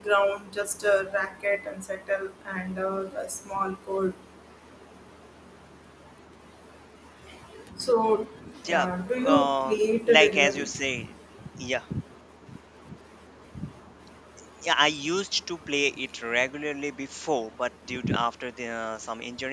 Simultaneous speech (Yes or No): Yes